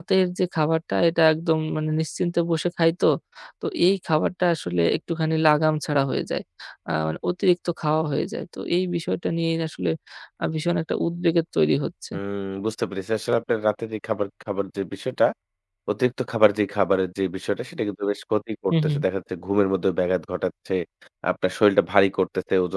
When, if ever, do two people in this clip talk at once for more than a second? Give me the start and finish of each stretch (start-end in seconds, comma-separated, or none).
none